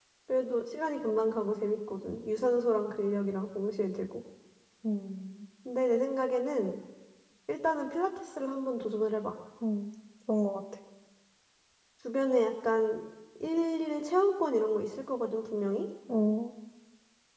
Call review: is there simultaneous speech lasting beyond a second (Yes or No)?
No